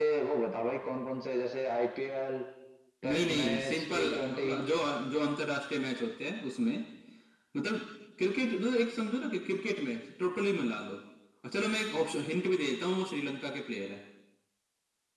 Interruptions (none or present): present